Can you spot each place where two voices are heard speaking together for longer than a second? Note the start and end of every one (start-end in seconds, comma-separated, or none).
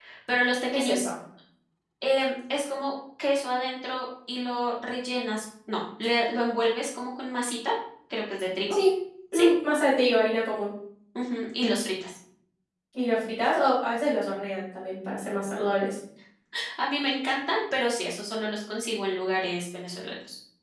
none